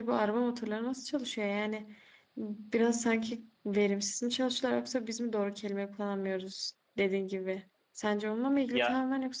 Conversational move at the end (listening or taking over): listening